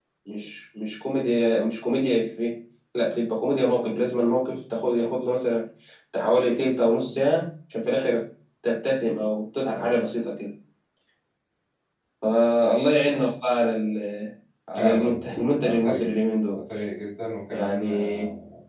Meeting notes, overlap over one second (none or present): present